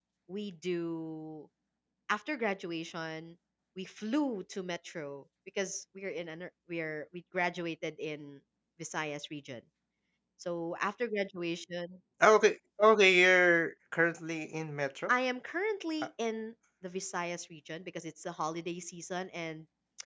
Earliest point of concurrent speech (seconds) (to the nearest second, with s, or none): none